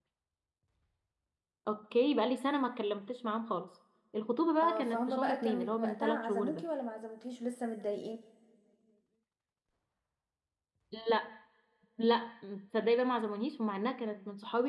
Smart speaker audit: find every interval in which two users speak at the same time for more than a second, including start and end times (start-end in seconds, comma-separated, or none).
4.6-6.6